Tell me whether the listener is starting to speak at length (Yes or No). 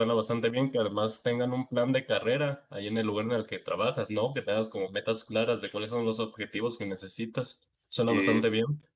Yes